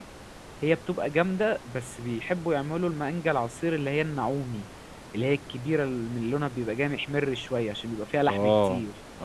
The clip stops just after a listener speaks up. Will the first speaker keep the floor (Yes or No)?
No